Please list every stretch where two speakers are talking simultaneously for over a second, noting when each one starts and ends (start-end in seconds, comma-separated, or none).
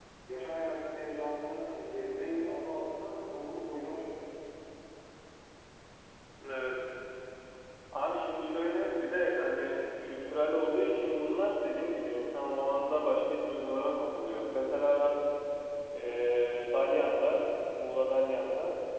none